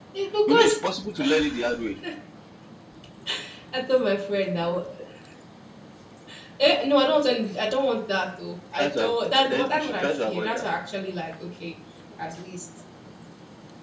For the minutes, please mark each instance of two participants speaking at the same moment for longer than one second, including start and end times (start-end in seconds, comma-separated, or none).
8.7-10.7